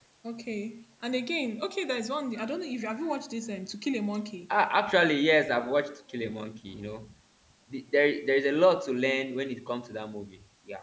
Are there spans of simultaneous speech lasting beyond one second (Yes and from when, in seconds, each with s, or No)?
No